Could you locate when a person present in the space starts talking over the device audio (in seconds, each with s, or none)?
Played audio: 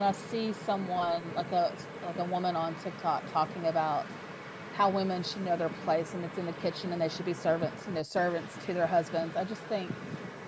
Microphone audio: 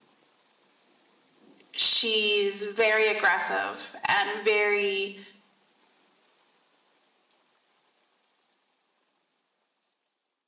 1.7 s